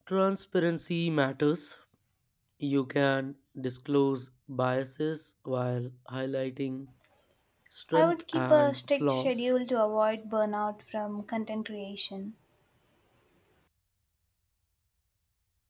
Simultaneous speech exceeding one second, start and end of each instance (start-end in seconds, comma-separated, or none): 7.9-9.5